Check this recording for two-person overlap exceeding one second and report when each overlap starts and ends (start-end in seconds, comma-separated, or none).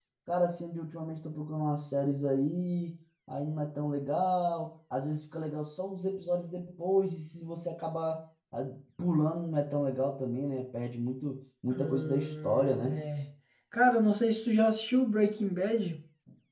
11.7-13.0